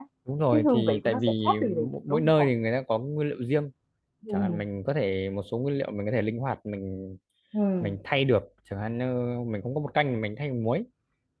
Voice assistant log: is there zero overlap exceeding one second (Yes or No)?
No